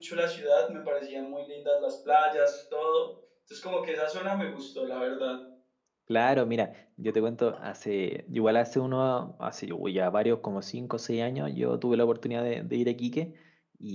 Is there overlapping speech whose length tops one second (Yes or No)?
No